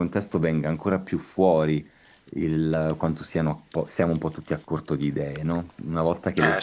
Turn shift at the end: No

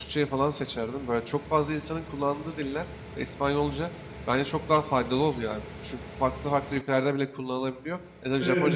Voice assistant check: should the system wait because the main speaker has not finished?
Yes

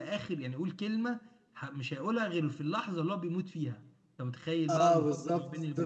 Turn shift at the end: Yes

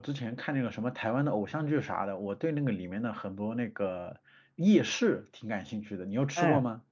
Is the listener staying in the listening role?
No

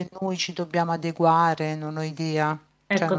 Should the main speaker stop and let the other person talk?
Yes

